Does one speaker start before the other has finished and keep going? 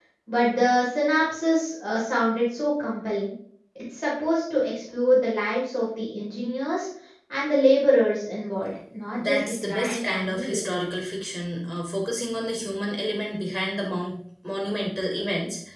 Yes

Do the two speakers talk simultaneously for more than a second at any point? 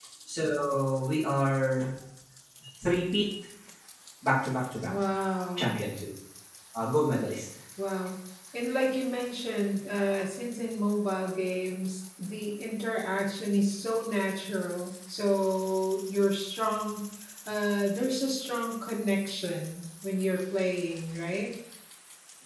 No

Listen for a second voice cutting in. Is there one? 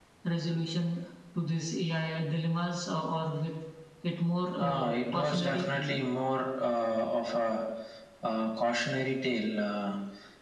Yes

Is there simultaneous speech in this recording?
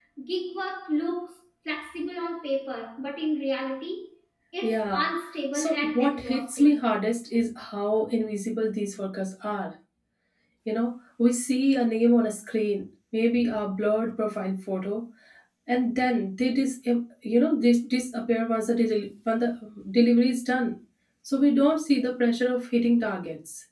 Yes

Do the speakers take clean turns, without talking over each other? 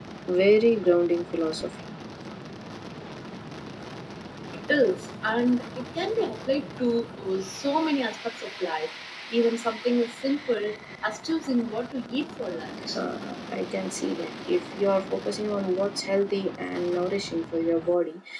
Yes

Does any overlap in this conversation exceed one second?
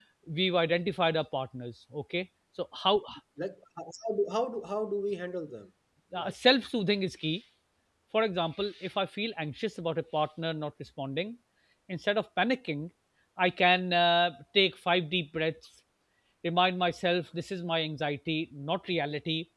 No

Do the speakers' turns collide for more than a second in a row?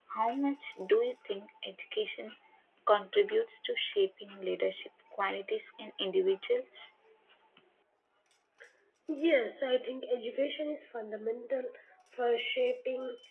No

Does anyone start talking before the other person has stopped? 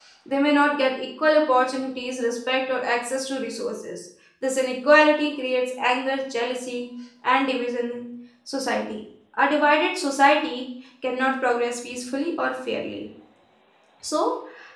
No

